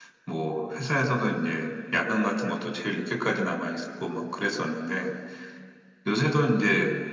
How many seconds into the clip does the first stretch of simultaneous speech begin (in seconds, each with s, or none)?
none